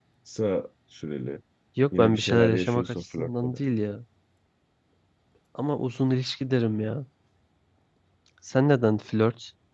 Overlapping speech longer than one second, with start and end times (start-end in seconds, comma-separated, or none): 2.0-3.6